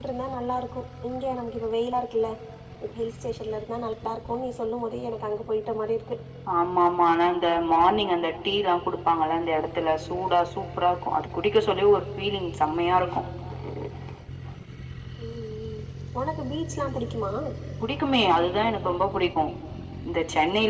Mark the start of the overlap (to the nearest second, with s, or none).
none